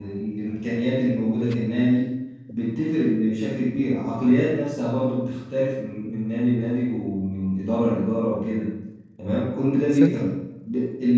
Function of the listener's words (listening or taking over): listening